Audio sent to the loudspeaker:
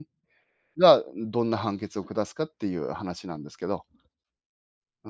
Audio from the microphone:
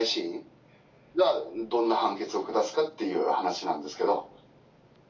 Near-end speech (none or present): none